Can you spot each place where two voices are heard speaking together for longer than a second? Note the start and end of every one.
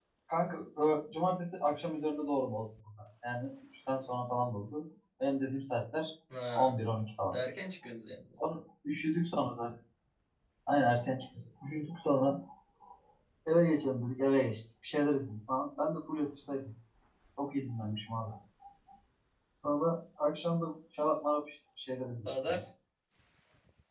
none

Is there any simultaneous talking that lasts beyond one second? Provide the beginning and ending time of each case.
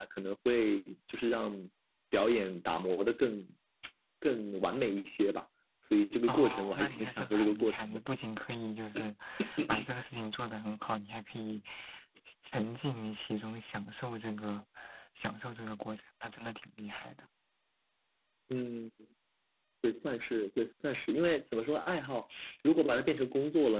6.3-8.0

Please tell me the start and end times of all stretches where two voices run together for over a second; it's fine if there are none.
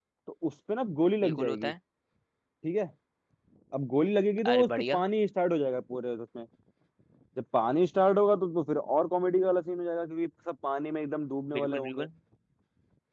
none

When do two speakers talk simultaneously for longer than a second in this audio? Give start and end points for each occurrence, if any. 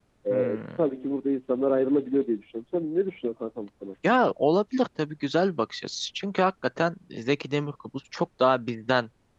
none

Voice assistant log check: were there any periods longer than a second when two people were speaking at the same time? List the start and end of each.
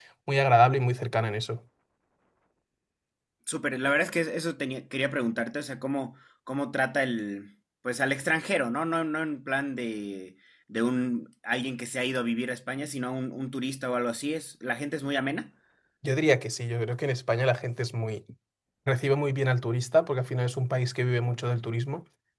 none

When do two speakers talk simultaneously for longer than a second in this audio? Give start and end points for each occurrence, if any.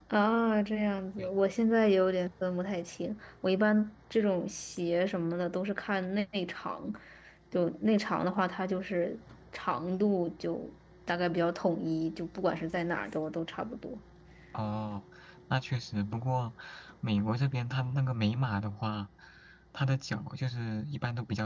none

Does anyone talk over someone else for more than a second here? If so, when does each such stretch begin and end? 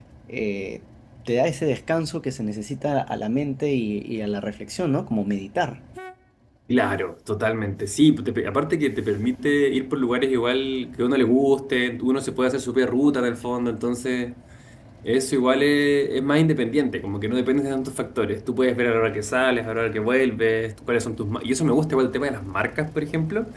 none

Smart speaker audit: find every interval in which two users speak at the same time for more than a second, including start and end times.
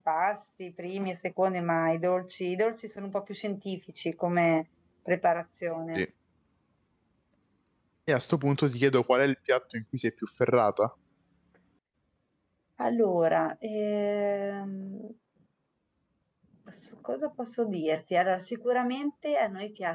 none

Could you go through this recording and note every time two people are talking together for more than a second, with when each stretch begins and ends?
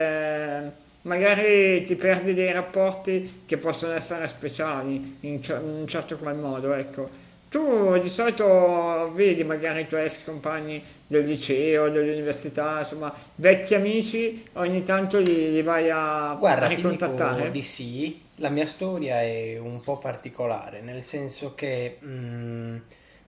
16.4-17.6

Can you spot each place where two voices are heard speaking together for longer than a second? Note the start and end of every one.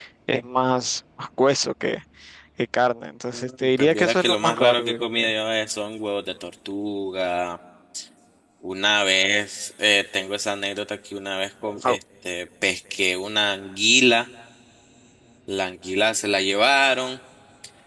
3.3-5.3

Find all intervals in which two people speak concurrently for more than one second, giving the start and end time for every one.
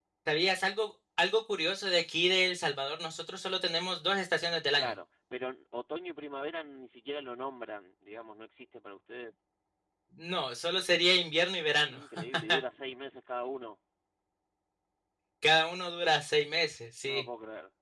none

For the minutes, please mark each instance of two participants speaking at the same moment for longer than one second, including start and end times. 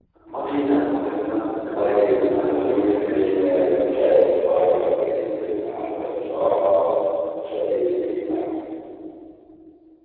1.7-4.1

